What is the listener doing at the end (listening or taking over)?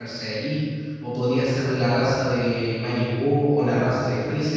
taking over